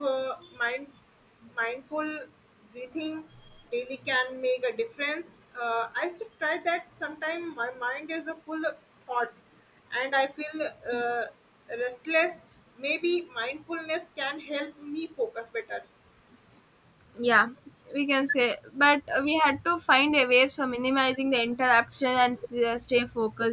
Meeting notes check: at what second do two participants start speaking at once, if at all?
none

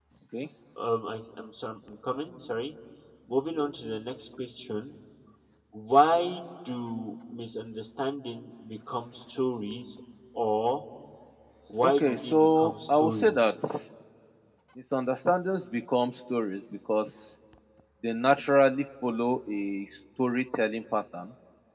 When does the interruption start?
11.8 s

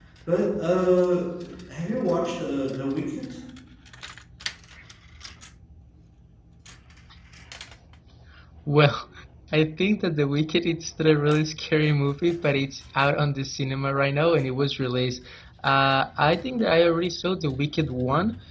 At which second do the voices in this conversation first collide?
none

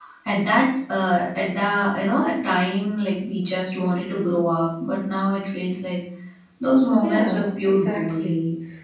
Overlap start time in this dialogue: 7.0 s

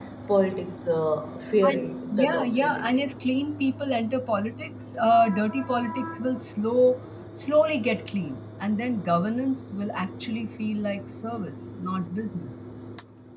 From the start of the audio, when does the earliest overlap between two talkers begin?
1.6 s

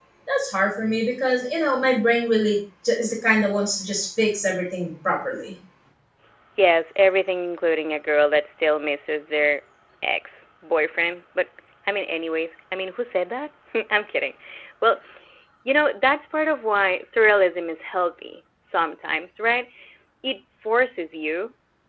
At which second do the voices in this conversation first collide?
none

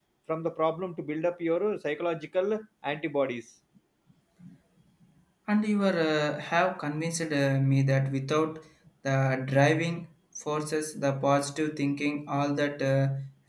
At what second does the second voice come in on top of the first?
none

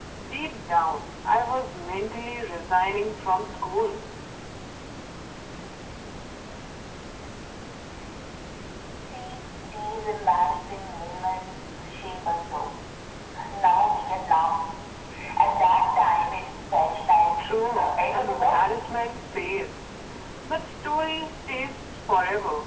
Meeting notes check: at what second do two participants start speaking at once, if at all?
17.4 s

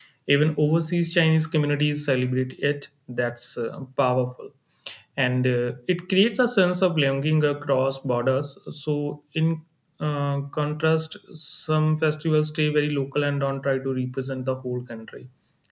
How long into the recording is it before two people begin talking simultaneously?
none

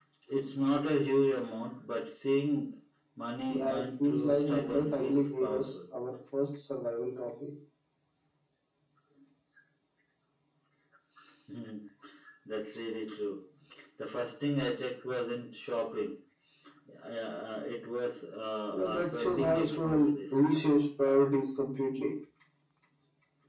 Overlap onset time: 3.5 s

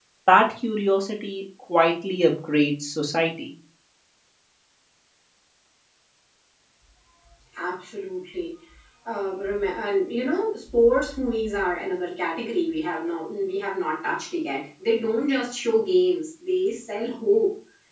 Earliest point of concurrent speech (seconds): none

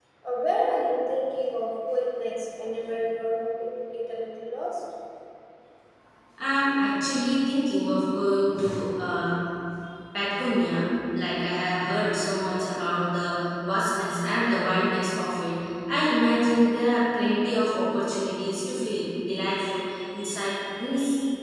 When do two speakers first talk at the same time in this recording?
none

